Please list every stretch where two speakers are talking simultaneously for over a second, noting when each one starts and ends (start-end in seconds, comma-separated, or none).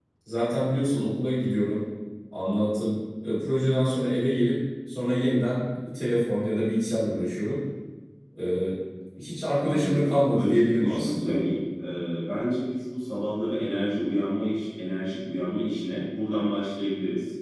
9.6-11.4